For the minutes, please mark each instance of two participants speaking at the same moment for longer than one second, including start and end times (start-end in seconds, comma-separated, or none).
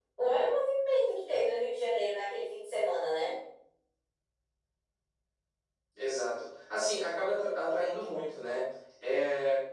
none